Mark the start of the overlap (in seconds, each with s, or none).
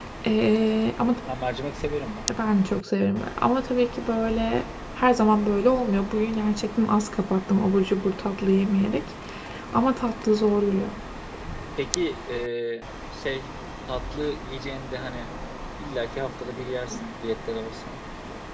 none